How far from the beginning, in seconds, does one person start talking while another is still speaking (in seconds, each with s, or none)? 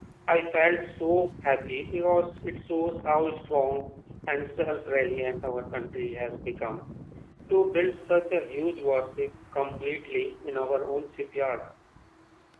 none